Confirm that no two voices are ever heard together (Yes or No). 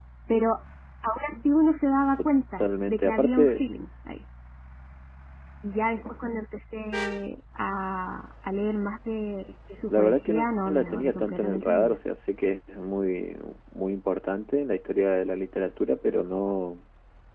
No